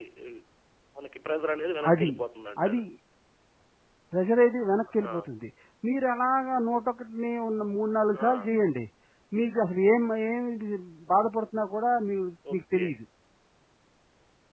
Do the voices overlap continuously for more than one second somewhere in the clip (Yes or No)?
No